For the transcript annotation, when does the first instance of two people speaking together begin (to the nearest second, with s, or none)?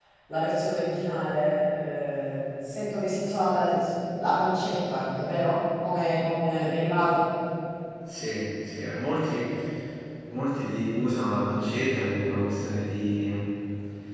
none